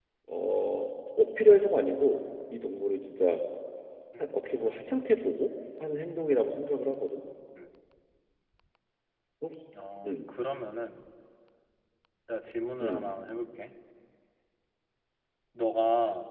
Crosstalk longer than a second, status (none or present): none